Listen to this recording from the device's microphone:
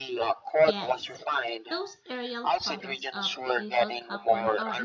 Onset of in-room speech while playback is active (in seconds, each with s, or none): 0.6 s